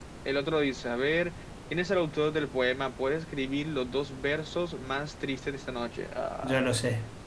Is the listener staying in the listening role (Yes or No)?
No